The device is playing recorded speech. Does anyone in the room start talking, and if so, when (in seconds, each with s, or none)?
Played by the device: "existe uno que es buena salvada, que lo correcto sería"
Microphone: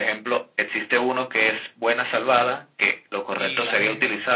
3.4 s